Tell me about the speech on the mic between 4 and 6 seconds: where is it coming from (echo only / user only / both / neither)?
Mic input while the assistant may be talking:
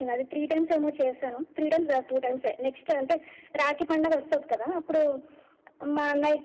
echo only